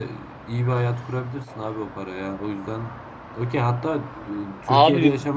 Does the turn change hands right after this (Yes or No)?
Yes